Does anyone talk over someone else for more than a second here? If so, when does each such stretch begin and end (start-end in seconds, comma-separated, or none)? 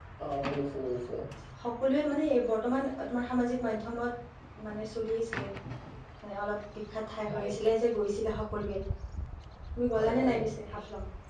none